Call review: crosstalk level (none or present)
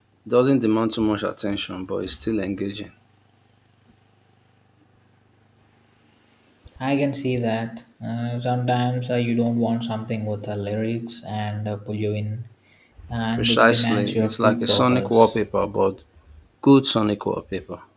present